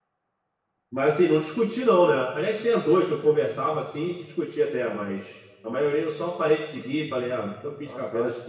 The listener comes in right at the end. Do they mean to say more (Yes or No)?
Yes